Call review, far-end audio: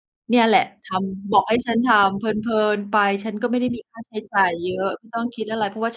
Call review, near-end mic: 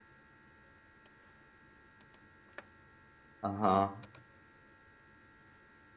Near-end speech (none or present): present